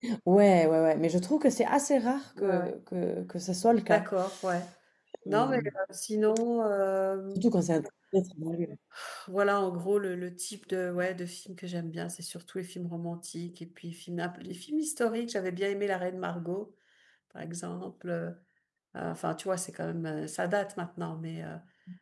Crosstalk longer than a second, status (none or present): none